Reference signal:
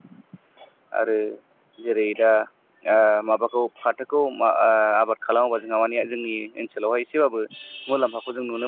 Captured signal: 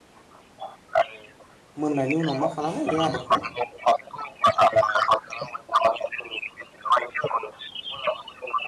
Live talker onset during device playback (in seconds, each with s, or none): 1.8 s